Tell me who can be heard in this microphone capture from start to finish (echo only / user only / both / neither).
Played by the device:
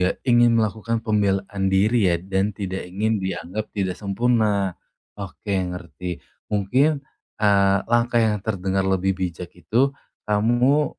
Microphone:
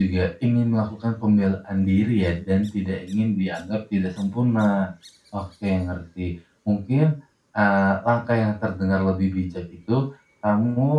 echo only